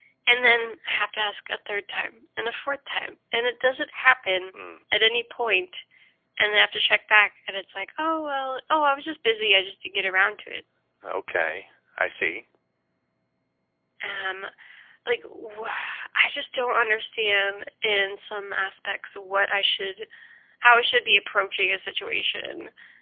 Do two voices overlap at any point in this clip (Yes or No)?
No